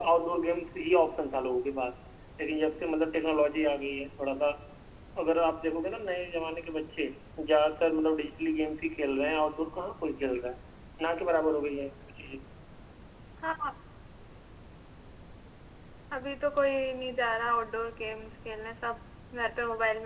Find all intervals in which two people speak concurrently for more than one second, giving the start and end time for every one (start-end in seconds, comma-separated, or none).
none